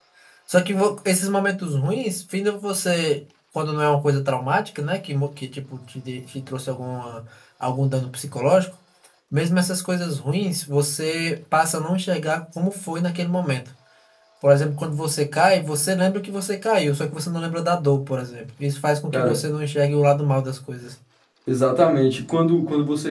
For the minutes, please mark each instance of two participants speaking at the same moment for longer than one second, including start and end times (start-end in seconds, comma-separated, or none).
none